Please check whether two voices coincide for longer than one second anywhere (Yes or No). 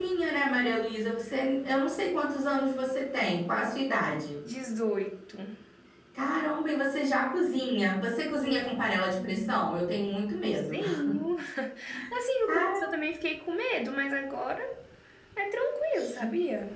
Yes